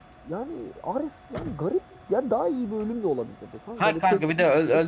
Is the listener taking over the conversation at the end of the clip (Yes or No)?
Yes